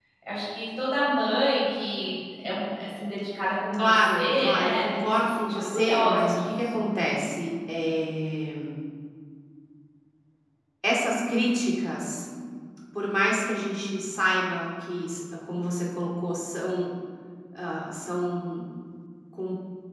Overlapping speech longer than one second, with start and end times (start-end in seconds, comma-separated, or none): 3.7-6.5